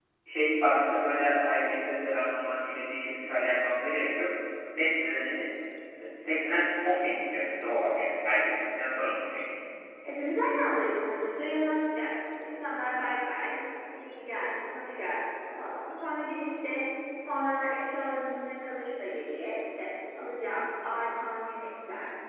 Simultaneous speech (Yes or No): No